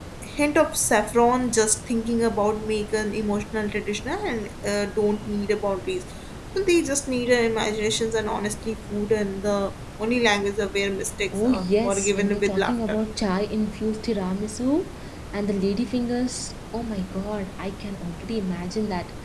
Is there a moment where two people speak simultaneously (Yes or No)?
Yes